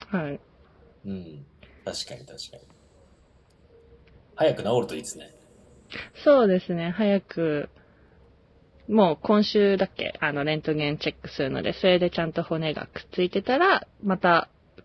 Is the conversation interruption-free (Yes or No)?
Yes